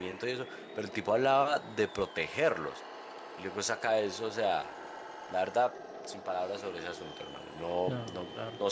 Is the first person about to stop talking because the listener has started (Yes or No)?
No